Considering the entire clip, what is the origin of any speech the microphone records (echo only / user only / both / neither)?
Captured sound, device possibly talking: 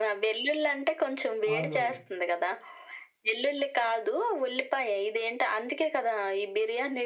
both